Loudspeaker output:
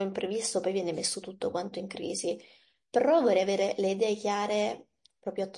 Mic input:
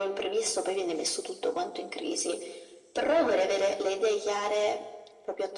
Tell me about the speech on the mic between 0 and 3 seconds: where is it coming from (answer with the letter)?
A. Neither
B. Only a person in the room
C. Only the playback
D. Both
C